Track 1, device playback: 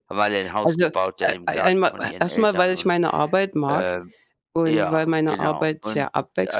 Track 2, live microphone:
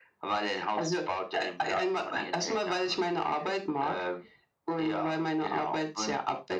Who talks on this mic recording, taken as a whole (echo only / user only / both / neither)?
echo only